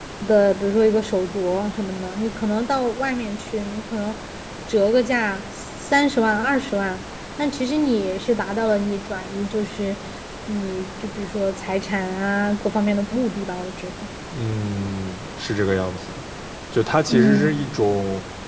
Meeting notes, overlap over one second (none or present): none